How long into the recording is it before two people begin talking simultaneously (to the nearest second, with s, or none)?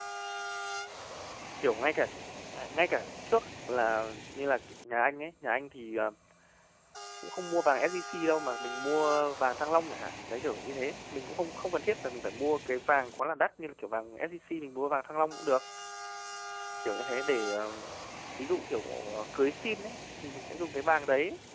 none